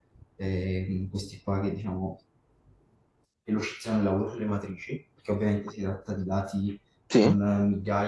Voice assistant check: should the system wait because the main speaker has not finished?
Yes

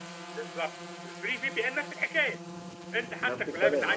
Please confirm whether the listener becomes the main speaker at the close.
Yes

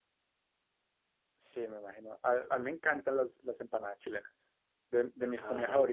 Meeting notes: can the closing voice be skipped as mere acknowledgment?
Yes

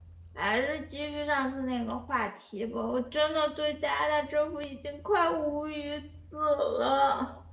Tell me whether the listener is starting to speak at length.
Yes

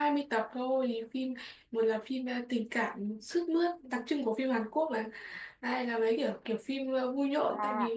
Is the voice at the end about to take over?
Yes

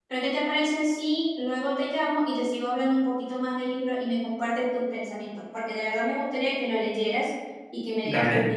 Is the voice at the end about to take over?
Yes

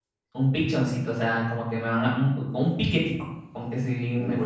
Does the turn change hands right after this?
Yes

